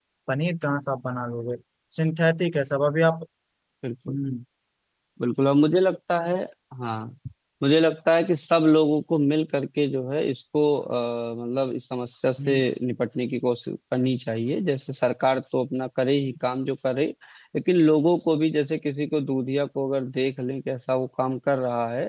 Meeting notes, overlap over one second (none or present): none